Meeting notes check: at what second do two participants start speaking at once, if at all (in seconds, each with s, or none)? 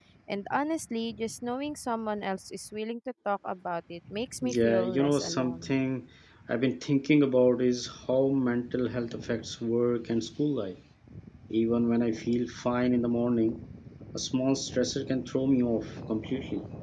4.4 s